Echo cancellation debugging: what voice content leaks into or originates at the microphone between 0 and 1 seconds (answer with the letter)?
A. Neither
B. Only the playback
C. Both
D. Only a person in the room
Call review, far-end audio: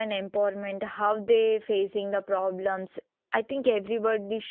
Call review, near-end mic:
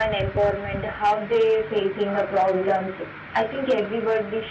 B